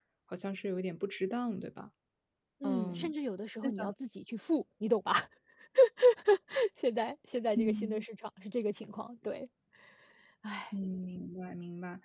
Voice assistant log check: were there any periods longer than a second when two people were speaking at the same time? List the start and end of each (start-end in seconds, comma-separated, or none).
none